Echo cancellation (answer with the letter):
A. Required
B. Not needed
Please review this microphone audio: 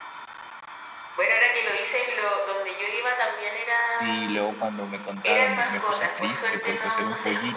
A